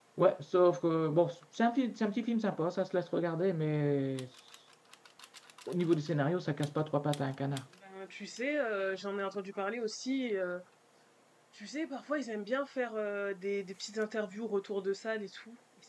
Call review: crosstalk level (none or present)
none